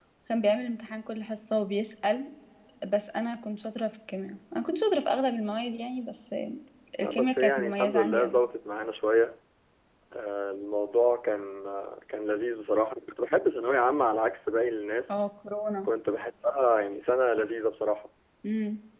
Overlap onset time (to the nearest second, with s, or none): 7 s